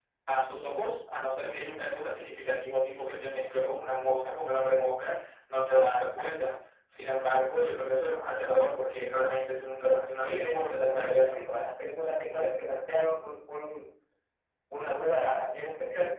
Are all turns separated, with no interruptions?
No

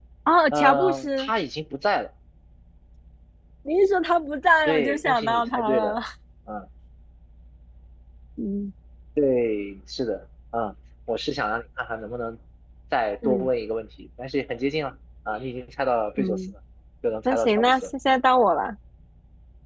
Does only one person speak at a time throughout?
No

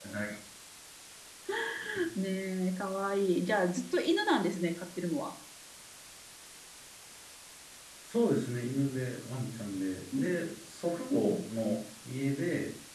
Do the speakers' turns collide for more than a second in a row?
No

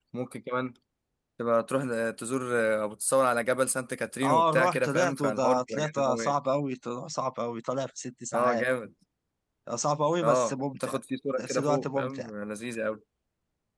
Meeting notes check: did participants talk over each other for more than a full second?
Yes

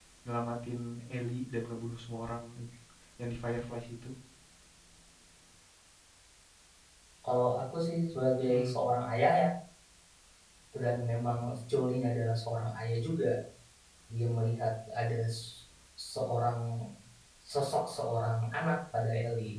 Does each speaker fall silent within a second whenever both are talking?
Yes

